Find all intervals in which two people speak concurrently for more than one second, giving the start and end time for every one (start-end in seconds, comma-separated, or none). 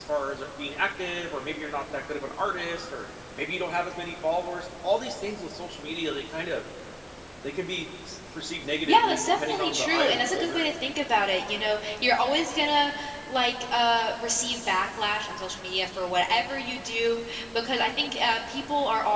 8.8-10.7